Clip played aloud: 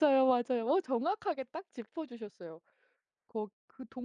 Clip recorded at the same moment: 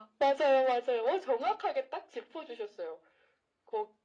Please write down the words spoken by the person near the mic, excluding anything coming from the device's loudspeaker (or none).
none